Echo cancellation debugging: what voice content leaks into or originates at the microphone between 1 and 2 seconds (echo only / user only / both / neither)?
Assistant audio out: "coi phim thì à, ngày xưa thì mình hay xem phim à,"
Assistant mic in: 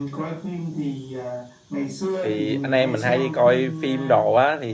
echo only